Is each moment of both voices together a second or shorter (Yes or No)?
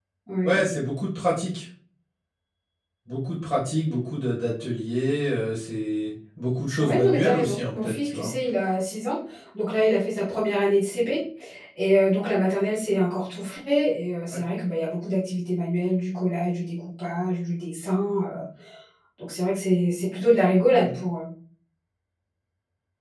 No